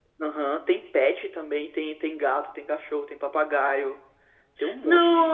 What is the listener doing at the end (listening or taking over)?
taking over